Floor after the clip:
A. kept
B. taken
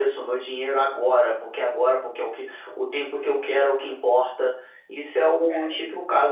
A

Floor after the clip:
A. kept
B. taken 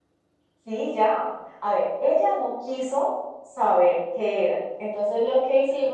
A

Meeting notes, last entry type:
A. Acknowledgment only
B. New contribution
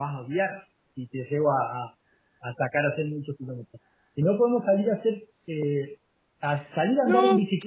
B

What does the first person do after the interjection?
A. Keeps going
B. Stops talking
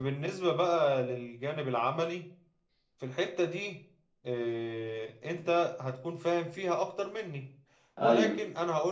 A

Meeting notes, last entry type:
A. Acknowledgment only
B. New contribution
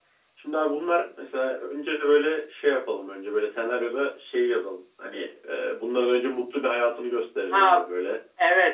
B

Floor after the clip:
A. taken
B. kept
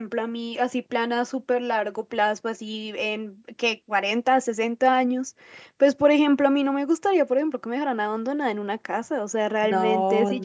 B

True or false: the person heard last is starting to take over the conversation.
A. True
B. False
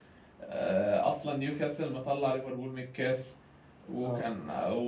B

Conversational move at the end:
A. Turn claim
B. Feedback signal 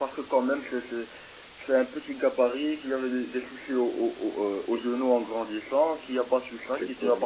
B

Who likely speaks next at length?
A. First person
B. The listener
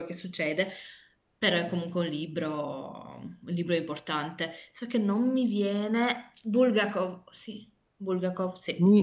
B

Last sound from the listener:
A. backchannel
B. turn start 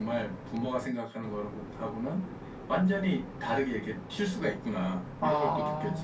B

